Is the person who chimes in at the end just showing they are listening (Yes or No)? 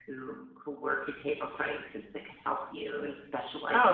No